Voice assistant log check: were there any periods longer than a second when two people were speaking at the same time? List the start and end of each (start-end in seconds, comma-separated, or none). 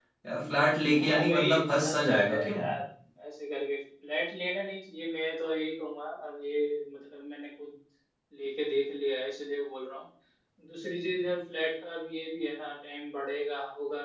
0.9-2.6